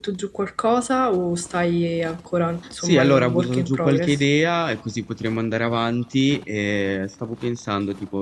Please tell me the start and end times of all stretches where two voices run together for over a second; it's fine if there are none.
2.8-4.2

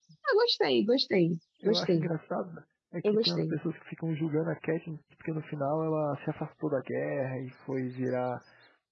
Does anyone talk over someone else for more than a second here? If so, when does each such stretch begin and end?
none

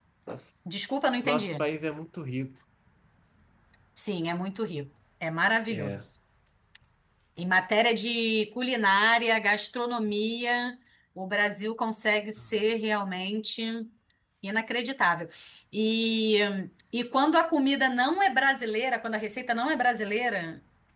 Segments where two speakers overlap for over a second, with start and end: none

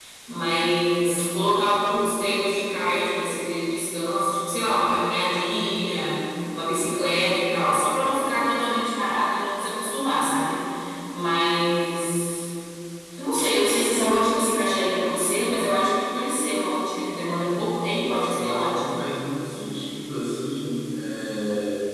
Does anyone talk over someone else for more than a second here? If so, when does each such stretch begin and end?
none

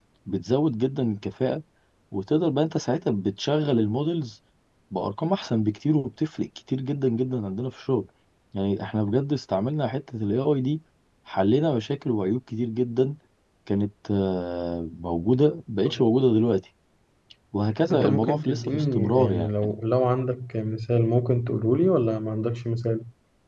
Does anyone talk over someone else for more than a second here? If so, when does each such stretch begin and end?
17.8-19.7

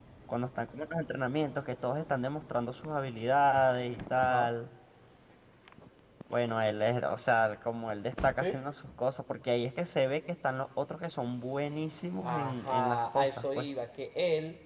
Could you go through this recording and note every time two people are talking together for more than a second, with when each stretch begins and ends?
12.2-13.7

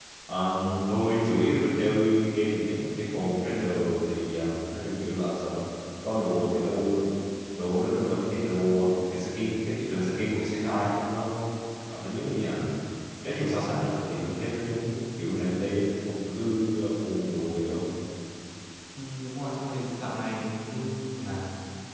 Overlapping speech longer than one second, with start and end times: none

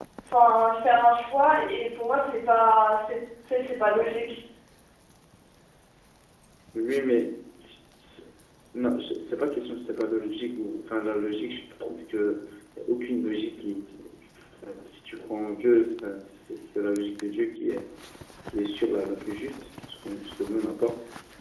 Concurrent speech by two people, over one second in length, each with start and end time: none

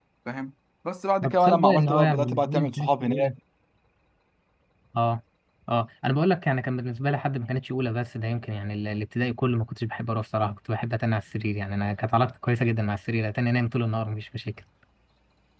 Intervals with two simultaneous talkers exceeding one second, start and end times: 1.2-3.3

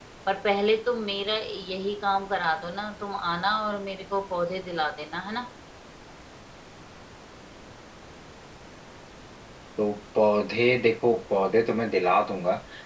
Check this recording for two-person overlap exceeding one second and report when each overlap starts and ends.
none

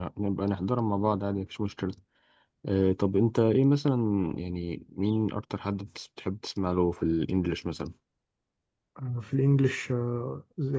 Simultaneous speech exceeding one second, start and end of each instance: none

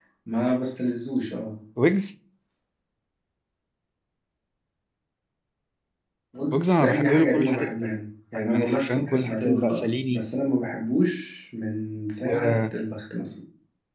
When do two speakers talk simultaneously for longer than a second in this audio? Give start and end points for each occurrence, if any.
6.5-8.0, 8.5-10.2

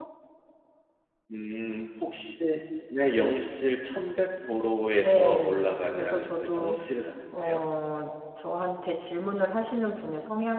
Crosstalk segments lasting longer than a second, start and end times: 5.0-6.8

